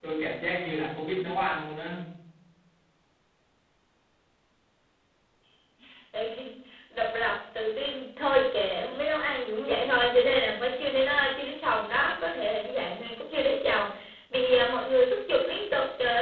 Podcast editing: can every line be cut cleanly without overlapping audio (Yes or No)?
Yes